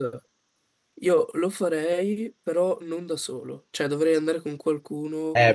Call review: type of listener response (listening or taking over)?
taking over